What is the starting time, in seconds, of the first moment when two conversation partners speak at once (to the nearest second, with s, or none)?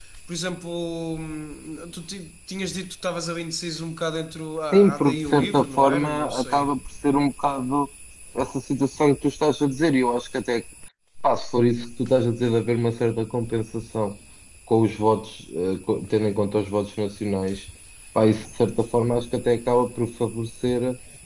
5 s